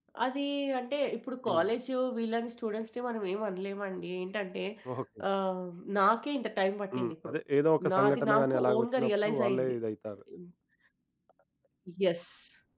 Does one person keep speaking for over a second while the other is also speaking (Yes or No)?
Yes